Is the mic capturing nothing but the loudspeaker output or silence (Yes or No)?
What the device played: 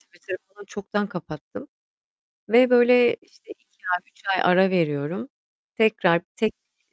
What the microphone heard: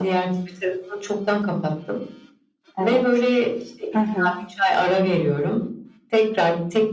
No